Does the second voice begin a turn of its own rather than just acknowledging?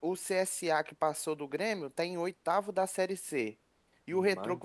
No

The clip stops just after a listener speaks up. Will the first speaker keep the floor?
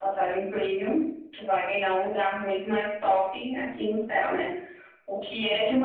Yes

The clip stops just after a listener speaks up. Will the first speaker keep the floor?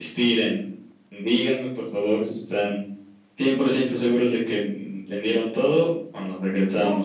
No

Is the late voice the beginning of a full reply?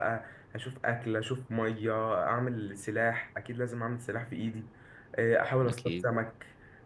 No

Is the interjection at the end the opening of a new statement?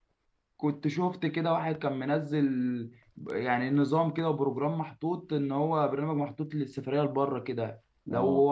No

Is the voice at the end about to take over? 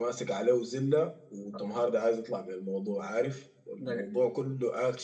No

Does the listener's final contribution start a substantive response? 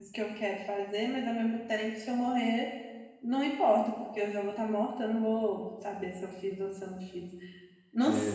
No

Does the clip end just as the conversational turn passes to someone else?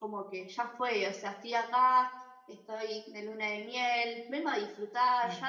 No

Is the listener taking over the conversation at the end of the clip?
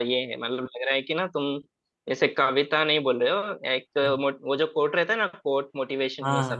Yes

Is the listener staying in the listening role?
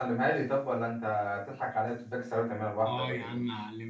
No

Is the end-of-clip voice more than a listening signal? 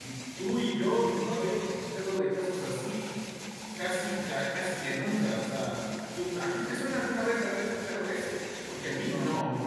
No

